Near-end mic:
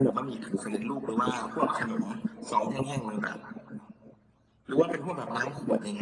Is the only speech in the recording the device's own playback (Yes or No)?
Yes